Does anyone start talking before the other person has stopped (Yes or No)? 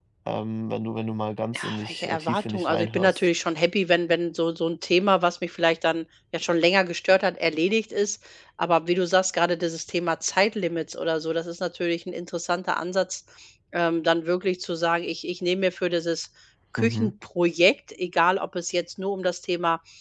Yes